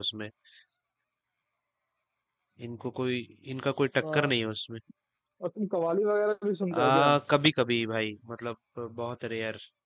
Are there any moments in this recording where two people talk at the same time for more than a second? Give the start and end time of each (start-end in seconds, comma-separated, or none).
none